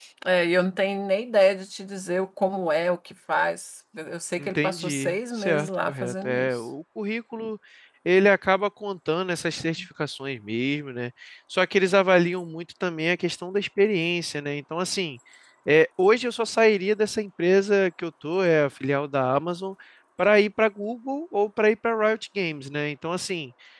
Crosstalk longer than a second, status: present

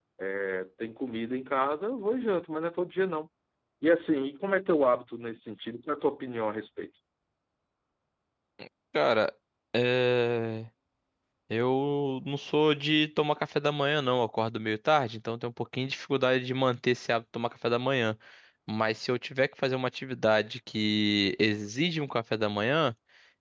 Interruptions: none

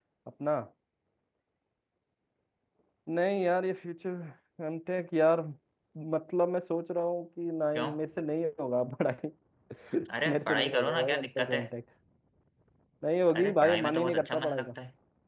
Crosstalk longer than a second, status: present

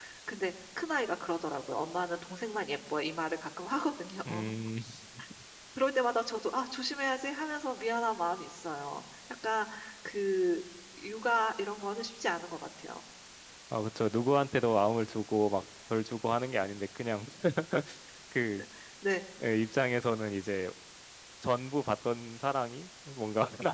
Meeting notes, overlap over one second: none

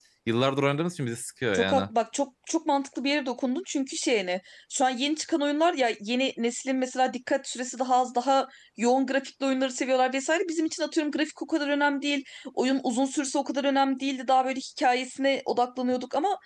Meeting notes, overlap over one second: none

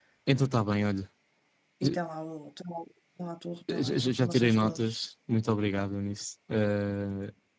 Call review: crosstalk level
present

